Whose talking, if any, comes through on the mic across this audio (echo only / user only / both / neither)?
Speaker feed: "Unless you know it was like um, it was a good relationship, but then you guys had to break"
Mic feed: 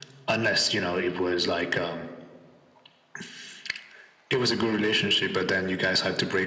echo only